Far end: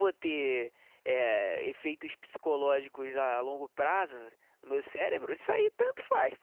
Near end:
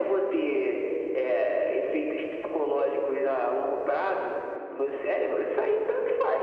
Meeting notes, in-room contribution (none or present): none